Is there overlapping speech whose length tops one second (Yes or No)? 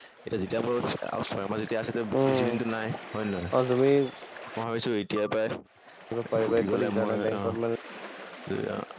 Yes